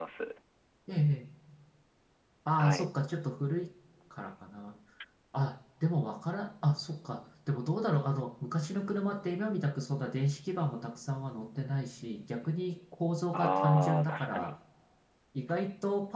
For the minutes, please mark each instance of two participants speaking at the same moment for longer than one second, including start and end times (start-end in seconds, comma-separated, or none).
13.3-14.5